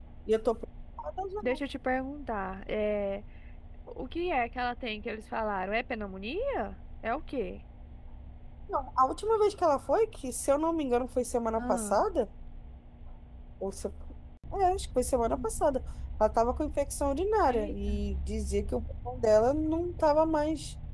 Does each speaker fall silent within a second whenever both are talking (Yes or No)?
Yes